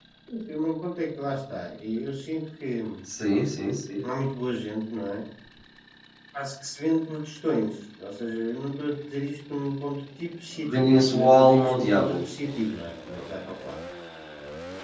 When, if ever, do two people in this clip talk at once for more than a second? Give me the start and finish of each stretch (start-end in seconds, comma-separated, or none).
10.7-12.2